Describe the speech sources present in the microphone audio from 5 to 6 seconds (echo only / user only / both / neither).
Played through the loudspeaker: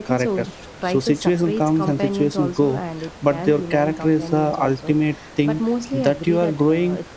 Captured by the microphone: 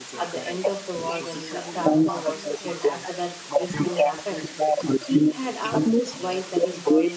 both